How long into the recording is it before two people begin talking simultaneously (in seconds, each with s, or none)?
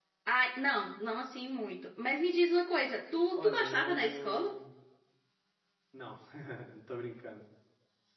3.4 s